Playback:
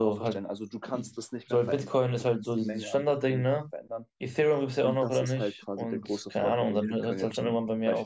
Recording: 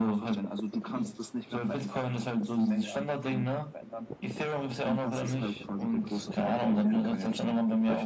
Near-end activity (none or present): none